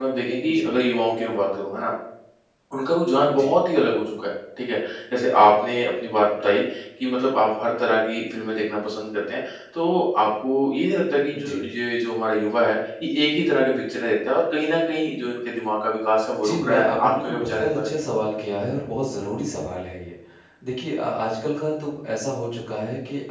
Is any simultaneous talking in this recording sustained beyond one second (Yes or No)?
Yes